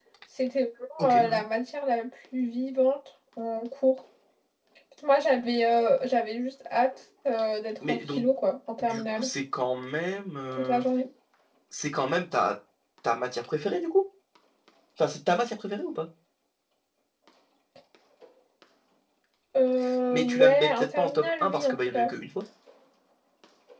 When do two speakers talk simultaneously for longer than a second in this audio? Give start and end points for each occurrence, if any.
20.1-22.1

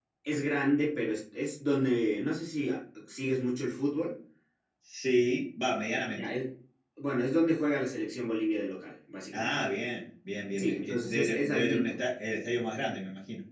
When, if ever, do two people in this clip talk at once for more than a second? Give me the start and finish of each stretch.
10.6-12.0

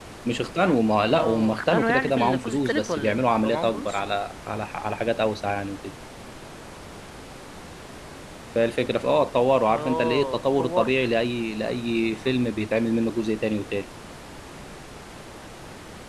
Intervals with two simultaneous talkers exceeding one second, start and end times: 1.1-4.0, 9.7-10.9

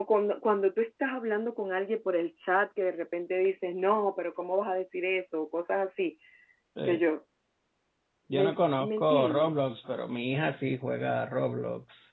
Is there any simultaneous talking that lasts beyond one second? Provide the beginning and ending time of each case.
8.3-9.5

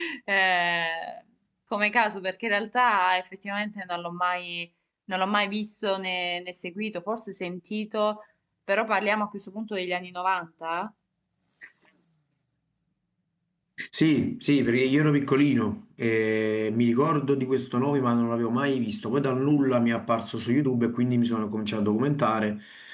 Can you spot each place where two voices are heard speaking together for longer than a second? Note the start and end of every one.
none

